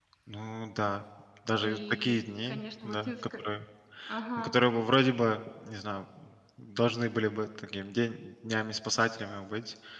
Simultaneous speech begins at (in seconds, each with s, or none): 1.6 s